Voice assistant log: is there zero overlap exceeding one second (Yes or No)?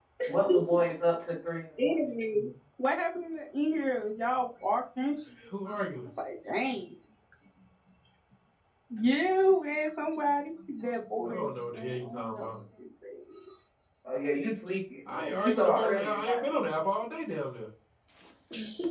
No